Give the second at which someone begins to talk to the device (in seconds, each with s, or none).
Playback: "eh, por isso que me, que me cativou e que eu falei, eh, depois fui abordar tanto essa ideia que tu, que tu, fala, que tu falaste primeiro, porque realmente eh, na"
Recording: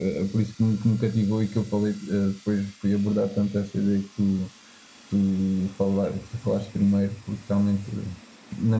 none